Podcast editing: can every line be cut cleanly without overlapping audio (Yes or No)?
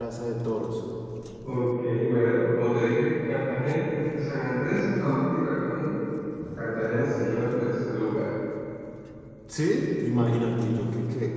Yes